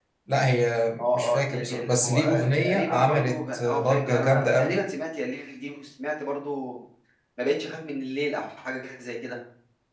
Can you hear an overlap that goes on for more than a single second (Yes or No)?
Yes